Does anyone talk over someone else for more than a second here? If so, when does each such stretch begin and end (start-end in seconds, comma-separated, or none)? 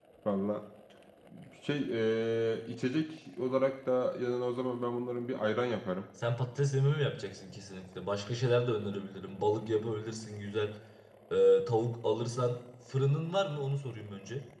none